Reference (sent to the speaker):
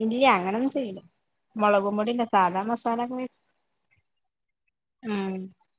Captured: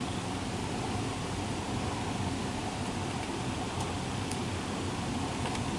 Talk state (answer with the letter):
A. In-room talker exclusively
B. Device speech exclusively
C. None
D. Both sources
C